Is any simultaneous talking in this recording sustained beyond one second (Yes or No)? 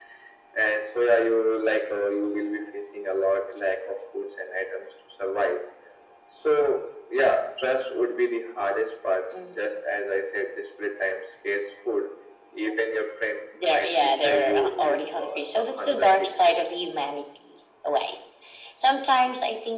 Yes